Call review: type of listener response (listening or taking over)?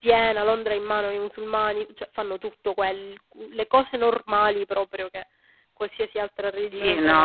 taking over